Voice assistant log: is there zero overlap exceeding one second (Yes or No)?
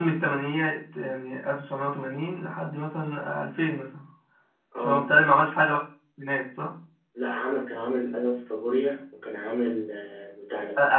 Yes